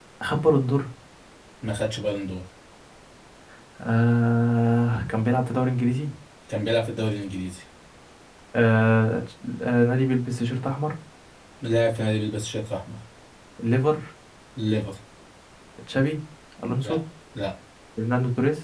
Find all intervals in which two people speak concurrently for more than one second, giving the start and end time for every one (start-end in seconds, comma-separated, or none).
none